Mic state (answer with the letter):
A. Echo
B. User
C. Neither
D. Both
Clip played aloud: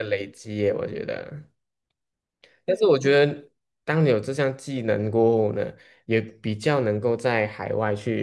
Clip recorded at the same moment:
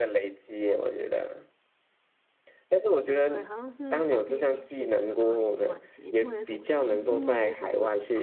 D